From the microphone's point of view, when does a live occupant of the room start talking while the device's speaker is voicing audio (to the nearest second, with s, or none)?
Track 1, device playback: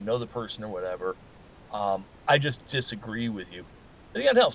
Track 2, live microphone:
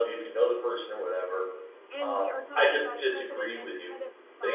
2 s